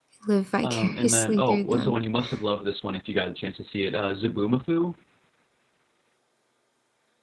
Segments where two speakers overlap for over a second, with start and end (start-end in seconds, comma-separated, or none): 0.6-1.9